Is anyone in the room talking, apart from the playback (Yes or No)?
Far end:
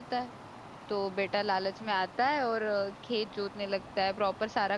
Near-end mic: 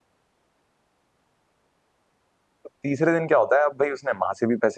Yes